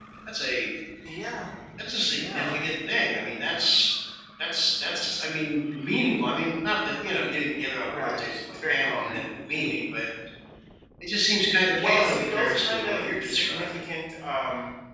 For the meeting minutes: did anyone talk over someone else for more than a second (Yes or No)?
Yes